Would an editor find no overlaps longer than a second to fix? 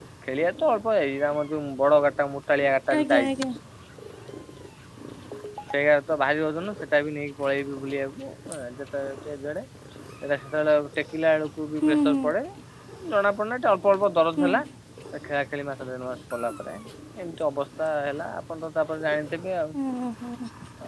Yes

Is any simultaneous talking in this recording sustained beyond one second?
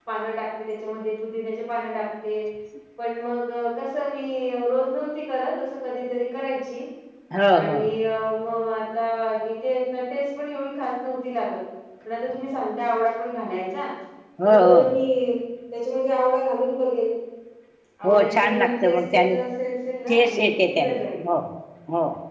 Yes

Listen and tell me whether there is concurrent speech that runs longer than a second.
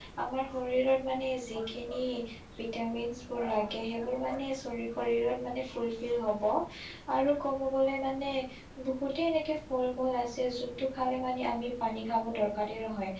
No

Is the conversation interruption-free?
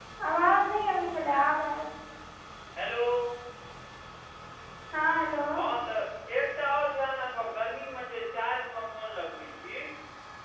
Yes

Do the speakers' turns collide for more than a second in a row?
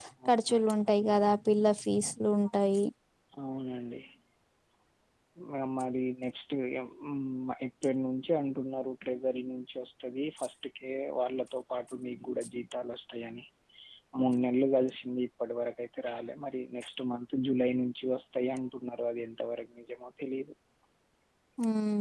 No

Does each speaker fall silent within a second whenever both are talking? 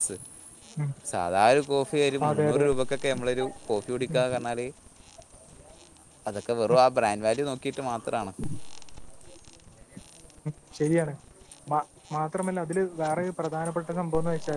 Yes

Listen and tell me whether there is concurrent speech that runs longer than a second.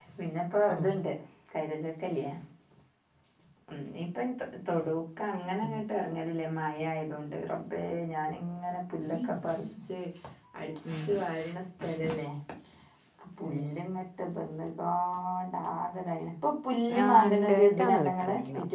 Yes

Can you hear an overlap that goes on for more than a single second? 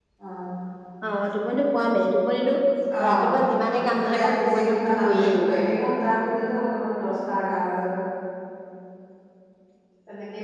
Yes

